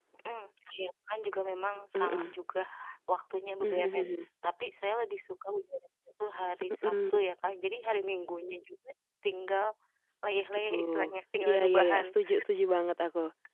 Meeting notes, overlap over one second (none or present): present